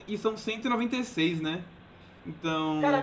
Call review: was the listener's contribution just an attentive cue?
No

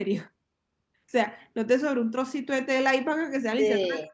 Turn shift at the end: No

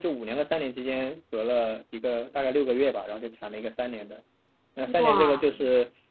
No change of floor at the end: Yes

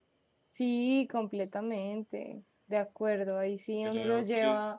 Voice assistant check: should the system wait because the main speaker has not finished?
Yes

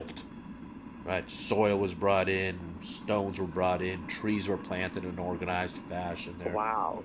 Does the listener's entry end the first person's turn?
Yes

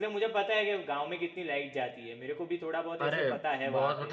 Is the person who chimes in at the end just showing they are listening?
No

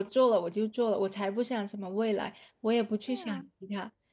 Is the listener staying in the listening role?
Yes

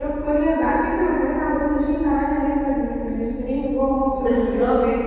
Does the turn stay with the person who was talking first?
No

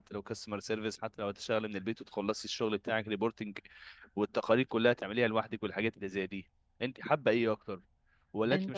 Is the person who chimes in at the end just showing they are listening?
Yes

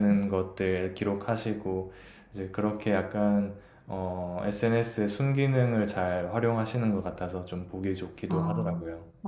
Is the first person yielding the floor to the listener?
Yes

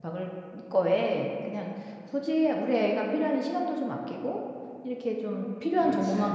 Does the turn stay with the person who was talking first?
Yes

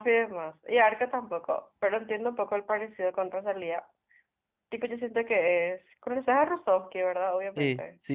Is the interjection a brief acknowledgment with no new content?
No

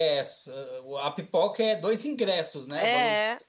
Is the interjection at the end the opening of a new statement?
Yes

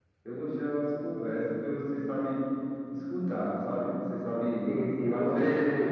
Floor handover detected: Yes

